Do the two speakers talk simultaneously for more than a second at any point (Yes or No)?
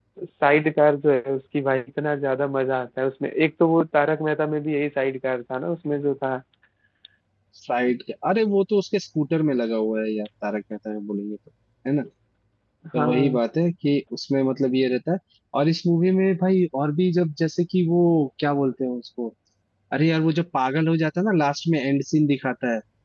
No